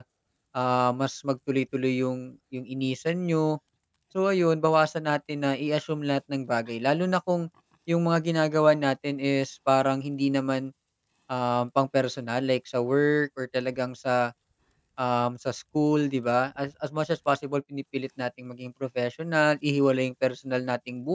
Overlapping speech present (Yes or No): No